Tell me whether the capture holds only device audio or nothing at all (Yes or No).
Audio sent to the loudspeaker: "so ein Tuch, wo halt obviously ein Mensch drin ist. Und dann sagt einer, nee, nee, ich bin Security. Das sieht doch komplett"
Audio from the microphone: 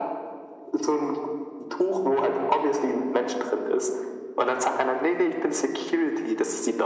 Yes